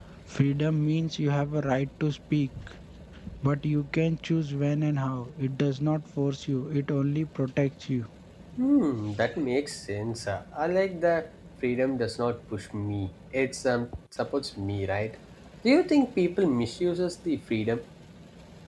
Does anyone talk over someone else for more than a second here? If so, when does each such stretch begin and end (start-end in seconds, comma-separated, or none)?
none